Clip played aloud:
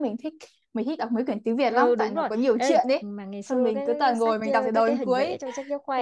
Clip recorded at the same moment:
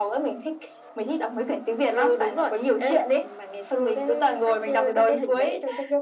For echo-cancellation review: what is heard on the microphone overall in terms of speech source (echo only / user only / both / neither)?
echo only